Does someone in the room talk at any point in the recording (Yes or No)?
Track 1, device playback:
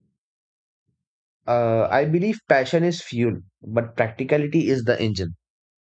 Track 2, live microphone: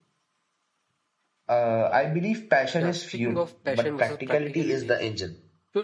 Yes